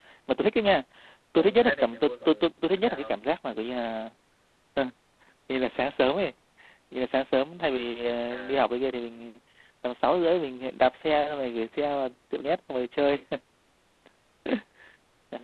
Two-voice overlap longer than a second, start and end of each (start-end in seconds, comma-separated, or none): 1.4-3.2